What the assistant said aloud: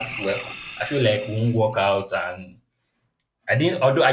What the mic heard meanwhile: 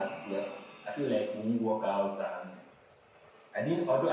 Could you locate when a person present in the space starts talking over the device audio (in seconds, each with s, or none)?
none